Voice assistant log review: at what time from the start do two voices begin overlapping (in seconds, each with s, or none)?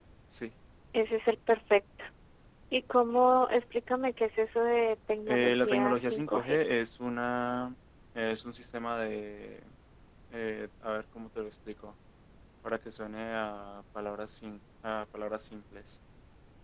5.3 s